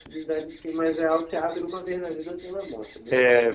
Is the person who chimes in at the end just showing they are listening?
No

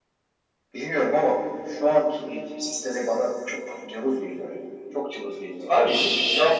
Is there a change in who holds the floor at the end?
Yes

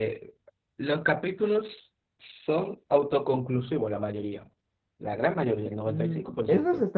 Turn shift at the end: Yes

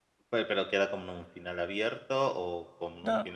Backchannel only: No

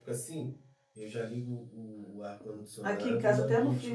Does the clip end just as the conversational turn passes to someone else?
Yes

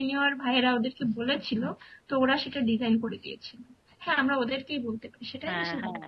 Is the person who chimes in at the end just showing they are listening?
No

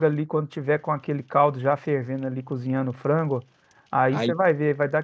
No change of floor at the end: Yes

